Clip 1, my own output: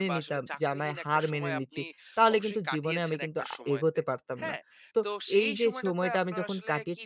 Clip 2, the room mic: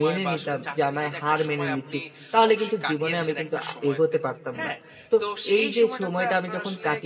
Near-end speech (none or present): none